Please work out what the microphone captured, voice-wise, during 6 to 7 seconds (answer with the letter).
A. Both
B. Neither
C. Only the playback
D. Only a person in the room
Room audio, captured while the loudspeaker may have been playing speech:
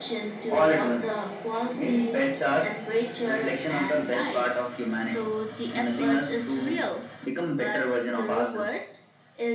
C